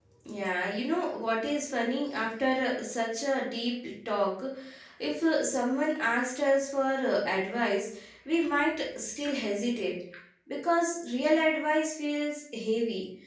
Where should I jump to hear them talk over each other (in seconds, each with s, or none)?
none